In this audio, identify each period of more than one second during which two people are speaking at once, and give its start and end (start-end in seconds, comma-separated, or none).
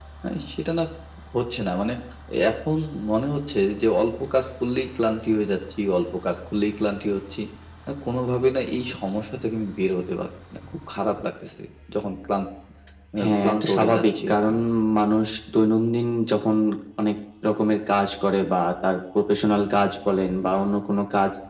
13.2-14.5